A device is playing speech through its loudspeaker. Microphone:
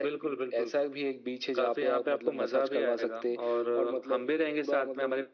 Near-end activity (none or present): none